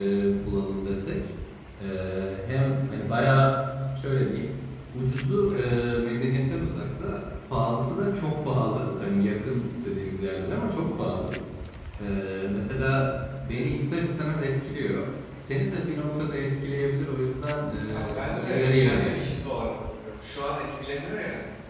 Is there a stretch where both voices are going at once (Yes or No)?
Yes